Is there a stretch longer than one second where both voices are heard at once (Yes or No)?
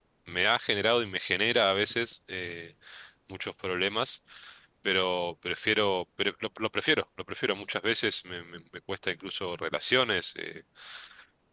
No